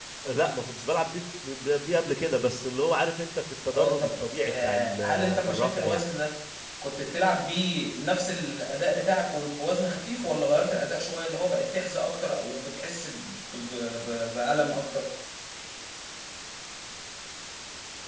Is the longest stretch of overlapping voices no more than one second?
No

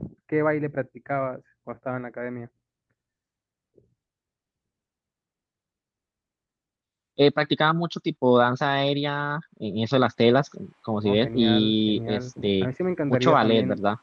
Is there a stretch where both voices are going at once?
Yes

